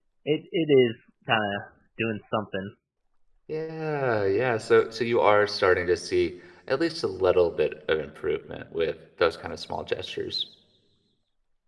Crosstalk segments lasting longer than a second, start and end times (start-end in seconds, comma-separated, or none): none